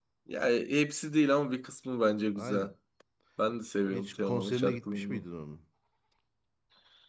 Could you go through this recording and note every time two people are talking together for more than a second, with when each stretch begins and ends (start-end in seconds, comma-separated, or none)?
3.9-5.2